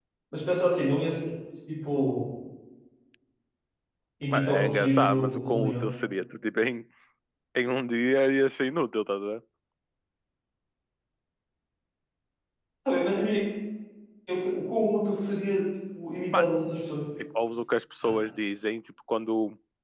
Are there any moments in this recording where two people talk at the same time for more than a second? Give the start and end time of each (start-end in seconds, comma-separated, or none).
4.3-5.9